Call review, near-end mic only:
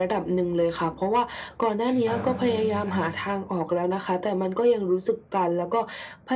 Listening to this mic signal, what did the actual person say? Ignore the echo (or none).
ขึ้นไป หรืออะไรอย่างเงี้ยครับ